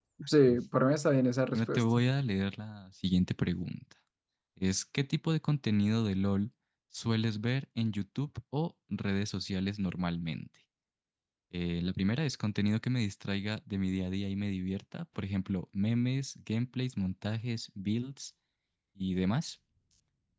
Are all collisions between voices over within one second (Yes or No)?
Yes